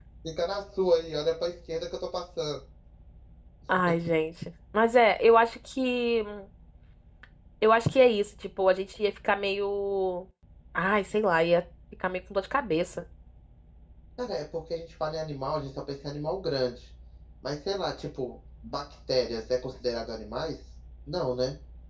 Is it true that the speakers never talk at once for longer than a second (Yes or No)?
Yes